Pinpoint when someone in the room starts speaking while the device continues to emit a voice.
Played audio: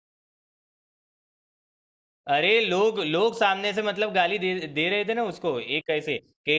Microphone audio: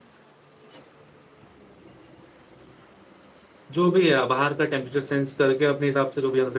3.8 s

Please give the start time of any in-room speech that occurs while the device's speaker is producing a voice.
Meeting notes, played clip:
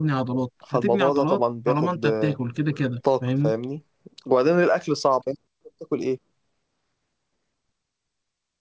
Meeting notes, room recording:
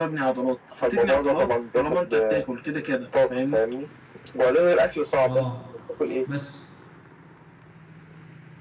5.2 s

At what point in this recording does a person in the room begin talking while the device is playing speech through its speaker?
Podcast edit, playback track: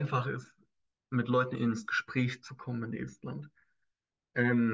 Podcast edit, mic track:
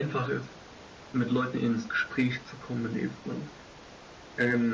none

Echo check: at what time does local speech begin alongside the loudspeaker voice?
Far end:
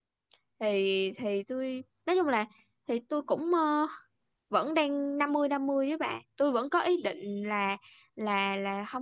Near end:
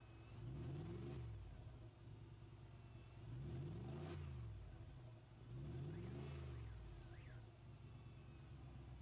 none

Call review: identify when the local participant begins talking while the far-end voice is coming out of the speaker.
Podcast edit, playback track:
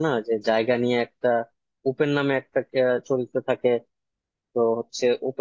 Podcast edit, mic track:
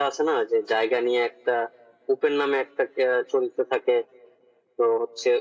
none

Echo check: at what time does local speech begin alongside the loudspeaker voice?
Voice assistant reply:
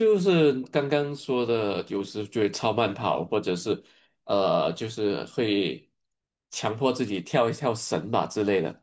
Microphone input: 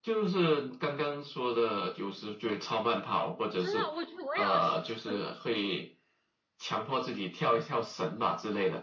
3.6 s

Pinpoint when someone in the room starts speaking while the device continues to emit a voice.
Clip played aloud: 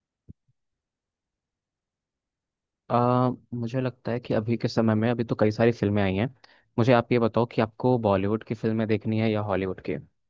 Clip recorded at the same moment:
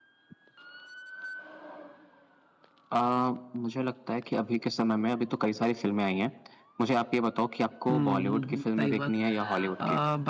7.9 s

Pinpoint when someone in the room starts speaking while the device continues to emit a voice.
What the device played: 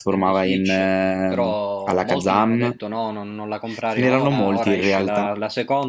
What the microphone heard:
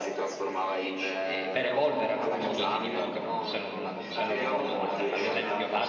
1.2 s

